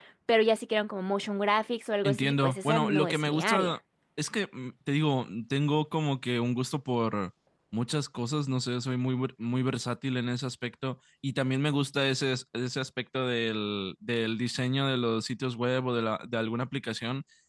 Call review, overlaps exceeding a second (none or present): present